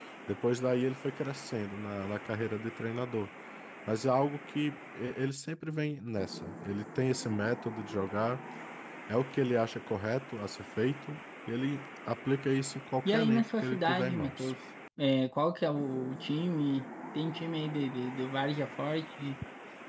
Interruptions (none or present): present